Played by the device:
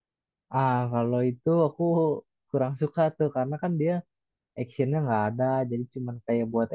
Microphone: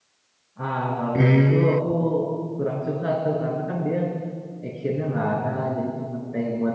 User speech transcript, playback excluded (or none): Hmm,